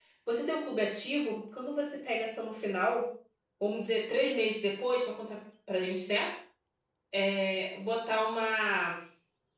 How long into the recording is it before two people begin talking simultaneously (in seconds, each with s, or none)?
none